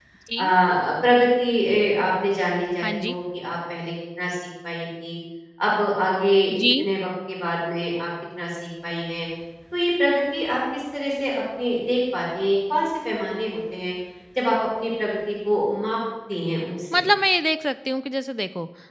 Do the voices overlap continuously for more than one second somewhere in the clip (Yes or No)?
No